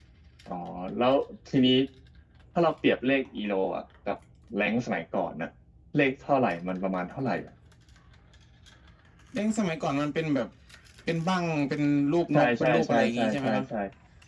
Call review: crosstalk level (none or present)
present